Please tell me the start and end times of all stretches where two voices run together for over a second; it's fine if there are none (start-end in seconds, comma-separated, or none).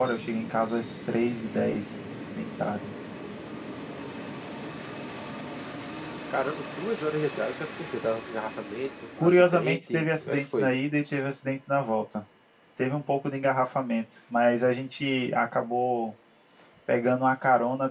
9.2-10.7